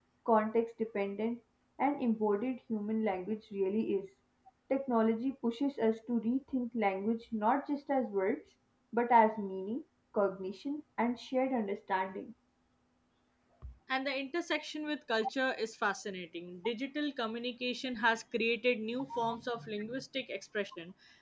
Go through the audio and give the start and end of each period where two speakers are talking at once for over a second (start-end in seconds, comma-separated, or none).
none